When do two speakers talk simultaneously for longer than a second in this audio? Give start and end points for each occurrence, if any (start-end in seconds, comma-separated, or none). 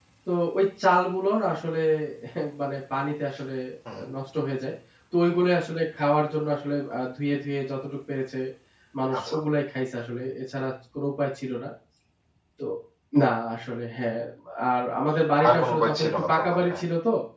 15.5-16.8